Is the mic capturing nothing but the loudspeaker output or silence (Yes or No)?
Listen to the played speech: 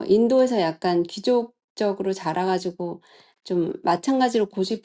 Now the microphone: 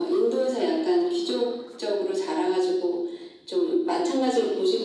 Yes